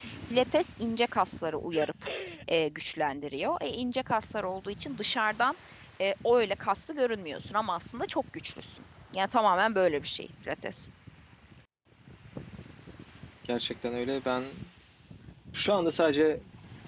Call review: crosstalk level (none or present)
none